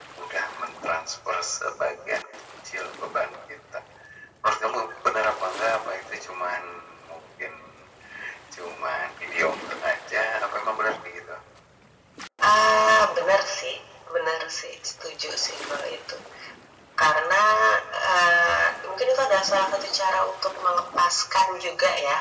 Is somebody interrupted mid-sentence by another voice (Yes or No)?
No